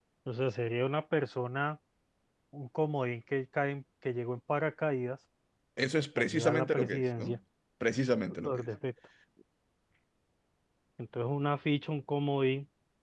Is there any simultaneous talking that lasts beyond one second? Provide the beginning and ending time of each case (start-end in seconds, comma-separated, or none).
6.2-7.4